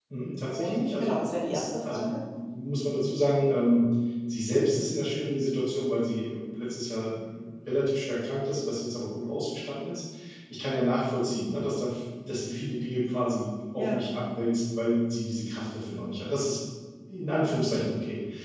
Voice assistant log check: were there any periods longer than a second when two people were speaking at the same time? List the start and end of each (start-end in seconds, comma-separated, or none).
0.6-2.2